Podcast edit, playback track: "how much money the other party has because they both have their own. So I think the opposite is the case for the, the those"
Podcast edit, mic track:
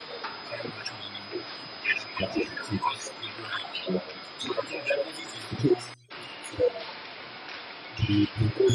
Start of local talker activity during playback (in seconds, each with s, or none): none